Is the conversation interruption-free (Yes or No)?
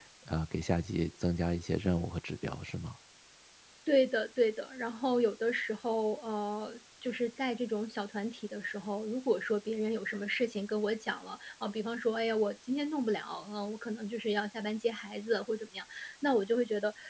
Yes